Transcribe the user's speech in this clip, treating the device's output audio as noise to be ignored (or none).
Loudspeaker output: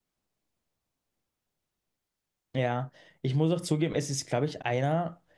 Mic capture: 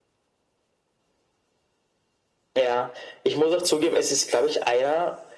none